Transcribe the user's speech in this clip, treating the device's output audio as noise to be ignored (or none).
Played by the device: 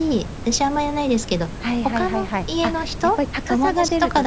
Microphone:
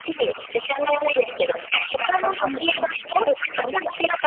うんうん。